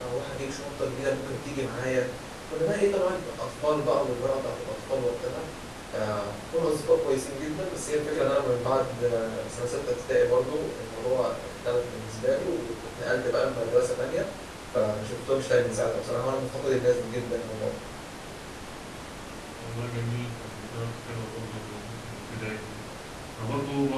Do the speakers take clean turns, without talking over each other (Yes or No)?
Yes